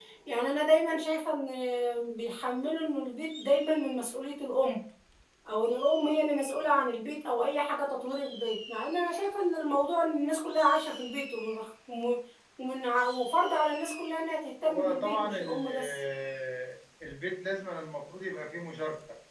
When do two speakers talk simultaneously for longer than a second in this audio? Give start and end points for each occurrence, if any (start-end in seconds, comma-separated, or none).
14.6-16.0